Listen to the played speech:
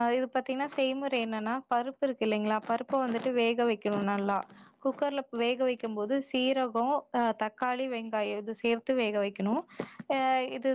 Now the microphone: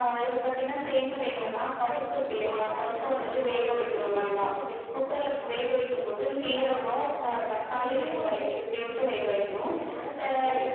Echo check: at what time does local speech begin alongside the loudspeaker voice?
1.2 s

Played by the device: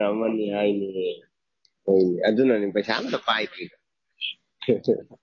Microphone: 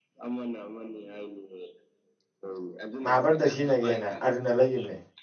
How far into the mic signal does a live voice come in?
3.0 s

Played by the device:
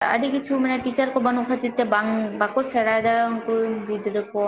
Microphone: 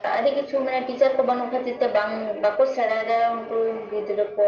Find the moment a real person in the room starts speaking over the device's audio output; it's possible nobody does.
none

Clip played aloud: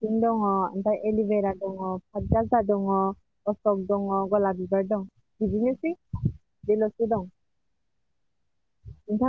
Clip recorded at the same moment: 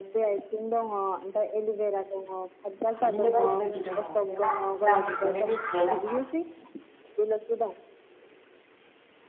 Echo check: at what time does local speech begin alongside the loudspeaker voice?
3.0 s

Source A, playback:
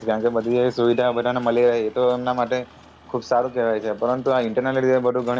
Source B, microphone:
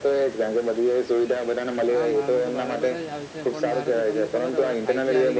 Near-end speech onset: 1.9 s

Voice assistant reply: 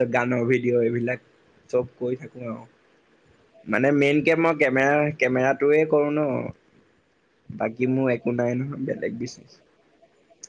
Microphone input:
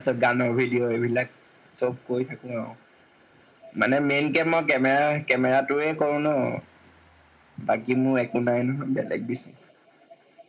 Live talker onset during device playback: none

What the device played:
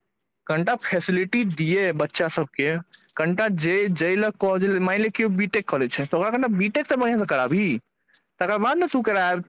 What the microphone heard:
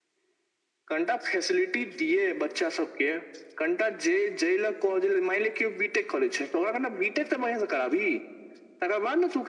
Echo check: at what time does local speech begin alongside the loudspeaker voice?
none

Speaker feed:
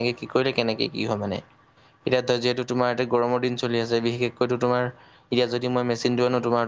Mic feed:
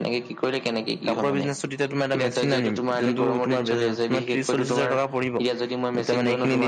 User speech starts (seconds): 1.1 s

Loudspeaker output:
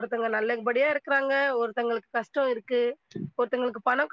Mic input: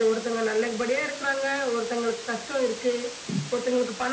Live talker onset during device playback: none

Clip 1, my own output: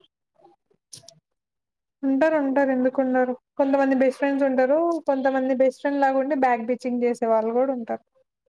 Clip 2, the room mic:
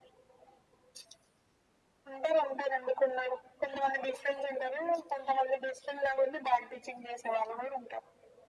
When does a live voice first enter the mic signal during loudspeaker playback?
none

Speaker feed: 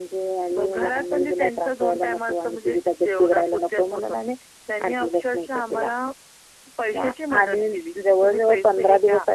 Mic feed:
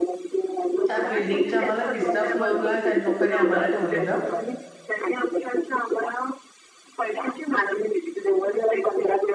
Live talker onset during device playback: 0.8 s

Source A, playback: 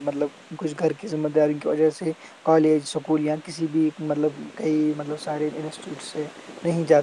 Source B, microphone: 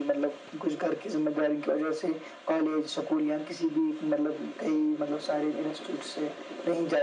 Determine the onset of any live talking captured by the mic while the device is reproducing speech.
none

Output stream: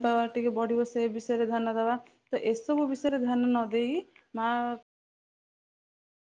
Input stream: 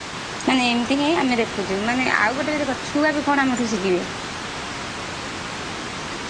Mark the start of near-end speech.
0.5 s

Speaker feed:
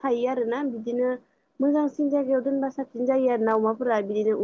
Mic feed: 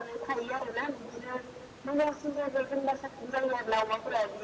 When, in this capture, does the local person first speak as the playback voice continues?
none

